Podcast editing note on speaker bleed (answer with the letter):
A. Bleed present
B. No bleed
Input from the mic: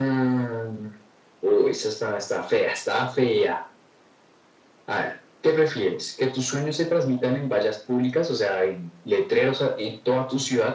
A